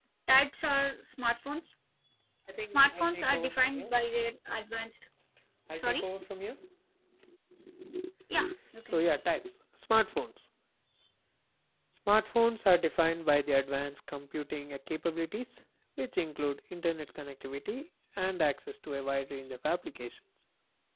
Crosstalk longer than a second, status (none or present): present